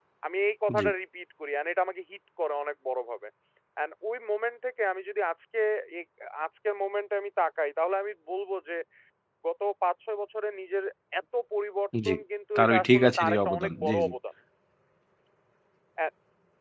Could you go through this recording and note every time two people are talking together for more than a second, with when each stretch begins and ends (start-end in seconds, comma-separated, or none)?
12.6-14.1